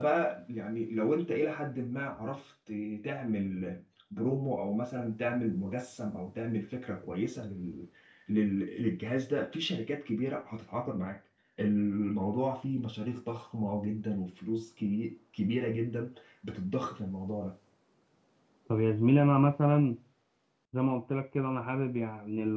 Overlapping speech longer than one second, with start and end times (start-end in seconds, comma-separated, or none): none